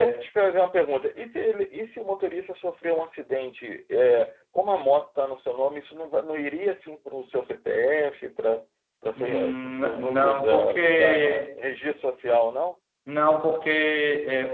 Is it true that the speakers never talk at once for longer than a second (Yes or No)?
No